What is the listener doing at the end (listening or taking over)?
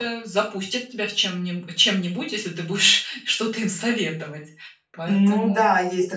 taking over